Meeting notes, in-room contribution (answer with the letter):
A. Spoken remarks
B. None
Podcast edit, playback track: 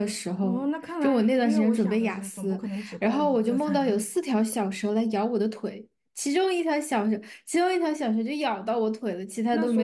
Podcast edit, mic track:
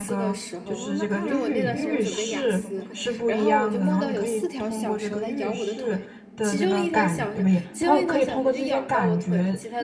A